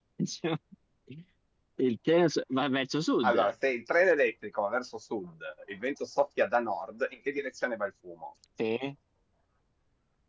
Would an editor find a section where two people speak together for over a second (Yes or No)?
No